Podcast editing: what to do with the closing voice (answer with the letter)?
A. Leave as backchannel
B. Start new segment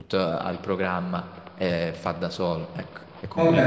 B